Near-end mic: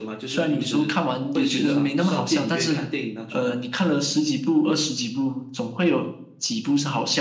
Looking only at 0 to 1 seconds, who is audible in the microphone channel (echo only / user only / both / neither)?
echo only